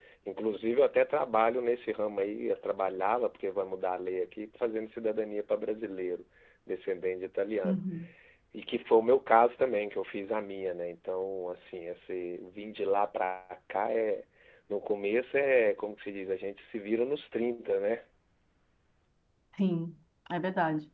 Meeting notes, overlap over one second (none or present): none